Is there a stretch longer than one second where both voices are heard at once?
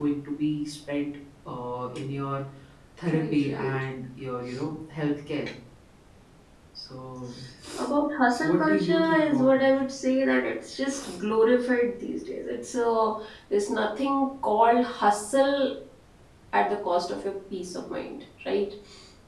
Yes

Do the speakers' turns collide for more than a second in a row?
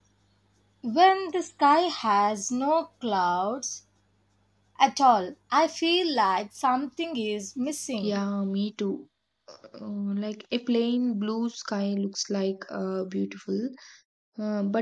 No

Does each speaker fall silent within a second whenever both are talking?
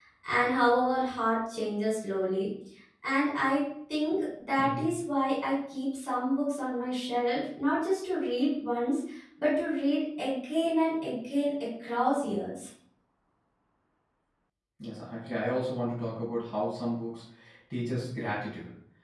Yes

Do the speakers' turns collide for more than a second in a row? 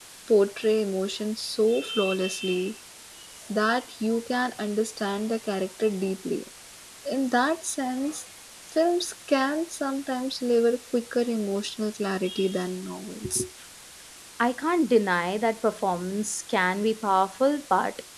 No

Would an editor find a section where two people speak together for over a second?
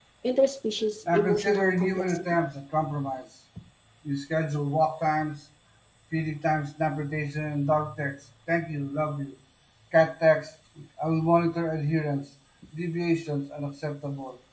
Yes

